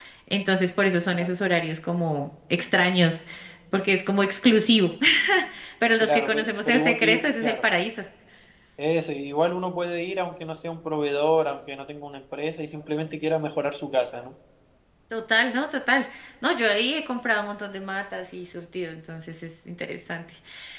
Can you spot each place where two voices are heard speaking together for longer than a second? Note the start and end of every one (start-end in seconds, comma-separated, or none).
6.0-7.6